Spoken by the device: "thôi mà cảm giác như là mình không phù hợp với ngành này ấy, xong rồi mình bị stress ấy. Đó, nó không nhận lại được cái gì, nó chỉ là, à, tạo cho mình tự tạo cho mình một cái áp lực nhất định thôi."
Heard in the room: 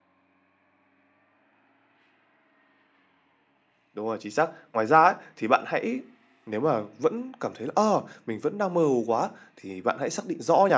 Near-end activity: present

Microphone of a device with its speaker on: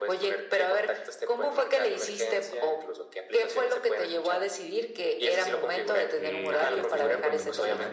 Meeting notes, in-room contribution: present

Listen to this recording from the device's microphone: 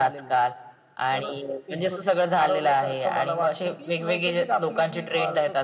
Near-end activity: none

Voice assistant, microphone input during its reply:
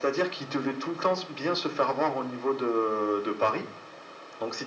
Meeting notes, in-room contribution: none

